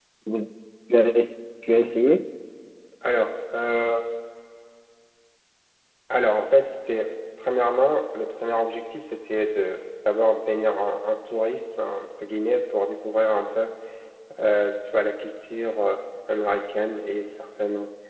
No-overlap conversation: Yes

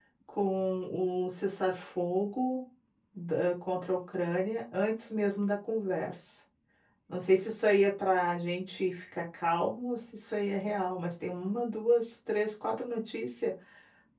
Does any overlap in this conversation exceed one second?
No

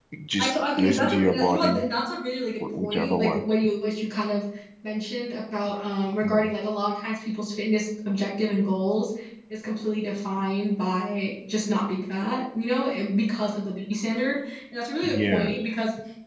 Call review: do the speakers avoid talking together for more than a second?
No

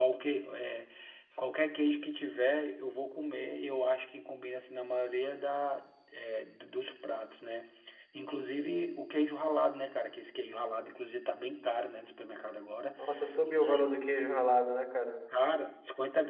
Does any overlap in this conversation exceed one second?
No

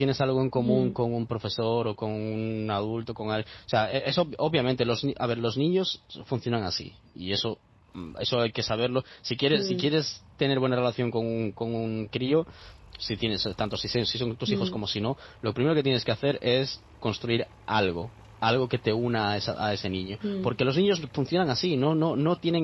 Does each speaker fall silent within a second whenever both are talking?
Yes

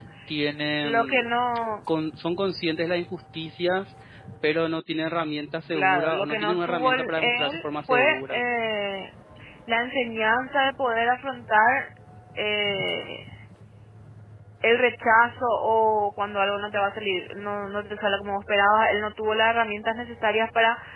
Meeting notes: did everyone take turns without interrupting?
No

